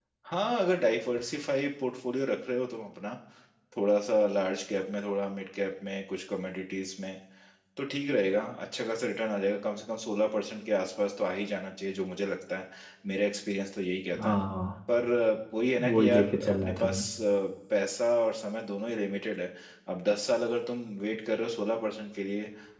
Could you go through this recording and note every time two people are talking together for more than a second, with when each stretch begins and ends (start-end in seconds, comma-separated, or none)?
15.8-17.1